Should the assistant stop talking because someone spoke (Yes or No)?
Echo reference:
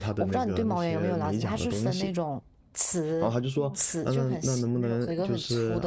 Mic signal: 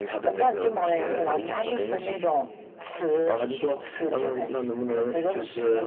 Yes